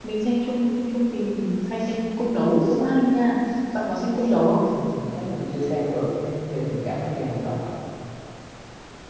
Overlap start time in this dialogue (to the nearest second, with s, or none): none